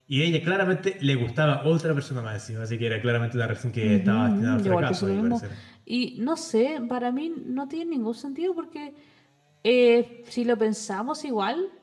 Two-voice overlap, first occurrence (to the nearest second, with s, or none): 4 s